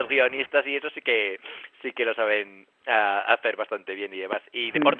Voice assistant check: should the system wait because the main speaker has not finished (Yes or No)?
Yes